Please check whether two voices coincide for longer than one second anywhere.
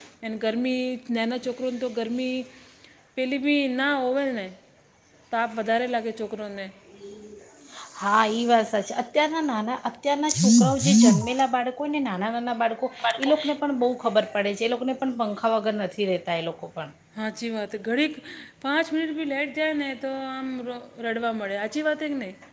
No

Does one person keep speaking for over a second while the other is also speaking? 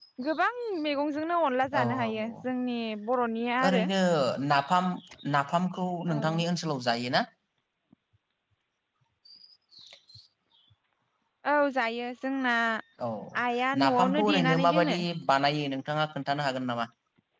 Yes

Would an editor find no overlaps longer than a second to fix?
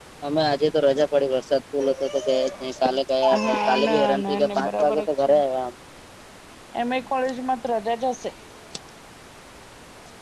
No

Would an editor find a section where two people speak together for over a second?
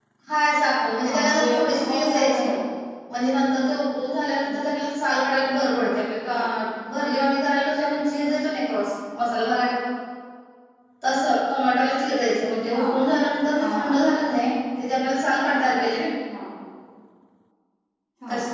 Yes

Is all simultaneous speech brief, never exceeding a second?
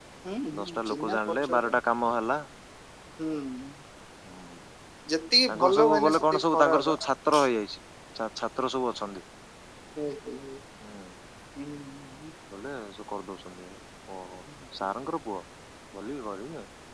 No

